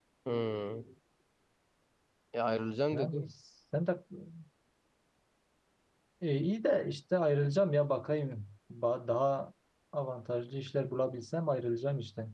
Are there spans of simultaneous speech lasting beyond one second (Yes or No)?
No